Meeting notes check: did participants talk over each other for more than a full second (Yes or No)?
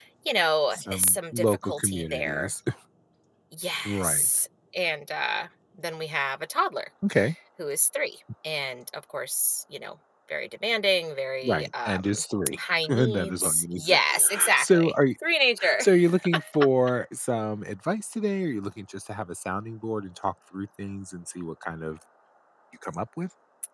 Yes